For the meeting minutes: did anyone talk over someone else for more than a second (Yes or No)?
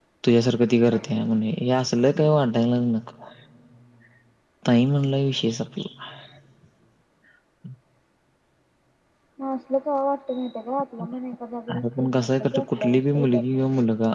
Yes